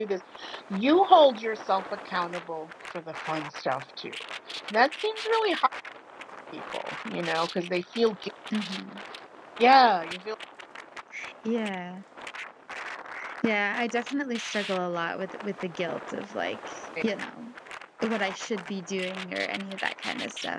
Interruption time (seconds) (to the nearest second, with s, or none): none